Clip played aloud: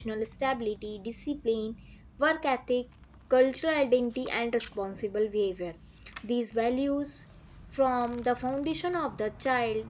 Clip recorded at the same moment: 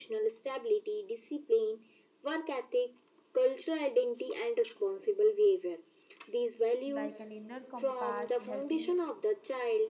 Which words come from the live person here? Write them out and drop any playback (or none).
like an inner compass helping